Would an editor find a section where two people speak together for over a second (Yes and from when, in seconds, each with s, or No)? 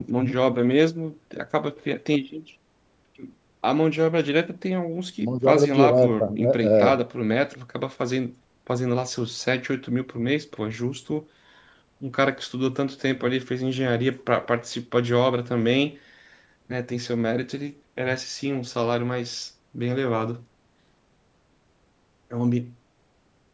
Yes, from 5.2 s